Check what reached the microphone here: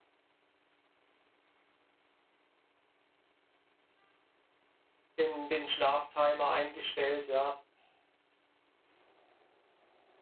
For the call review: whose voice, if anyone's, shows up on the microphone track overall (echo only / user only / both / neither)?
user only